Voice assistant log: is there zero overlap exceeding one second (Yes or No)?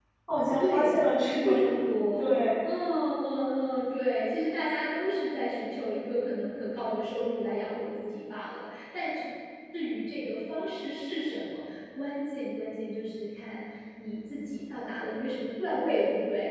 Yes